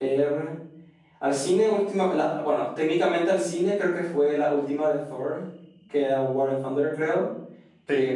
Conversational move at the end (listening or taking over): listening